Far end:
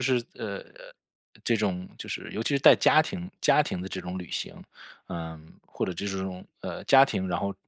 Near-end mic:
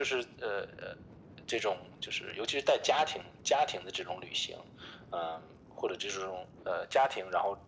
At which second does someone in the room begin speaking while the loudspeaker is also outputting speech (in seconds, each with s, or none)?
none